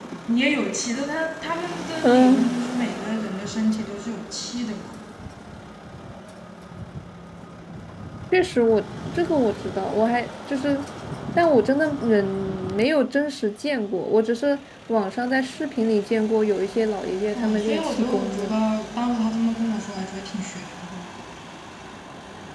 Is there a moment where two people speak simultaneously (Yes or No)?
Yes